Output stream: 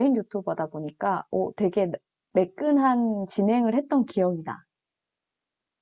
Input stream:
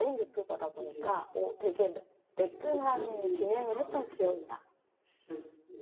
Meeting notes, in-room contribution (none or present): present